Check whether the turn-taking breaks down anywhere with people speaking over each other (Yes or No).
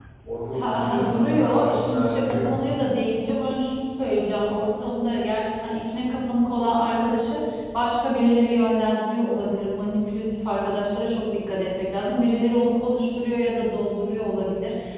Yes